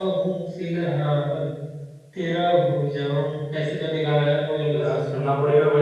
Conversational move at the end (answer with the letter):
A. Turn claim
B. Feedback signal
A